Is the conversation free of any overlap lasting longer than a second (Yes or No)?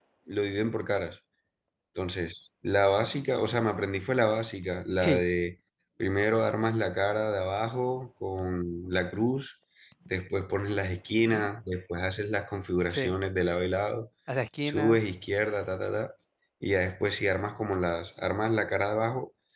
Yes